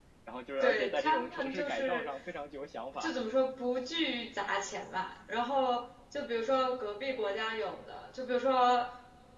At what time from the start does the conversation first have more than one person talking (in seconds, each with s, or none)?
0.6 s